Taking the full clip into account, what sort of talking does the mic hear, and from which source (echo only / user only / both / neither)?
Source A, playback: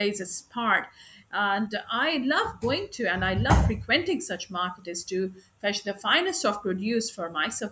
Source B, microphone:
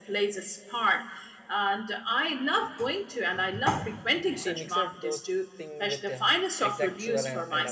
both